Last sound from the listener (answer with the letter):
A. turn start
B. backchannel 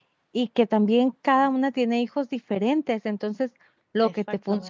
B